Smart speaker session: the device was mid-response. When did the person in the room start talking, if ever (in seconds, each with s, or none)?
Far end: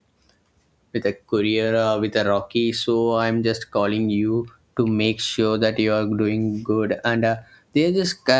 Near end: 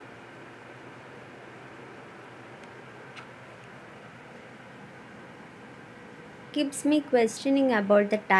6.5 s